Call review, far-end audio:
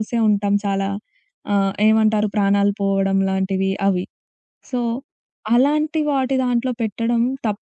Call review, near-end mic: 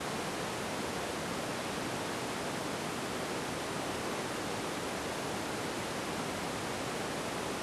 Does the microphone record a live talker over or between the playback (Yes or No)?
No